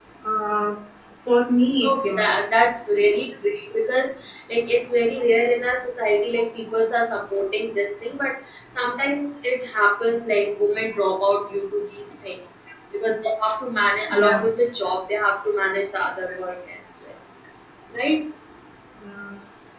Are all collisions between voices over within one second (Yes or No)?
Yes